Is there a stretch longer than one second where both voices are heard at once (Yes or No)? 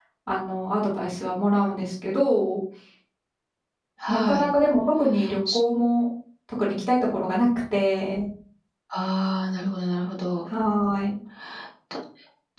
No